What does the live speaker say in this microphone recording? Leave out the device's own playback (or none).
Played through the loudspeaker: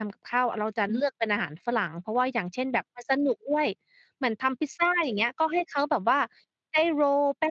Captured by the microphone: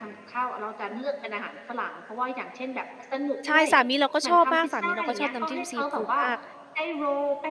ใช่ สามีเราก็ชอบมาก สามีเราก็ชอบน้ำจิ้ม ซีฟูดมาก